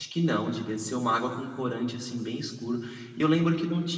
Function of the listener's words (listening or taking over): listening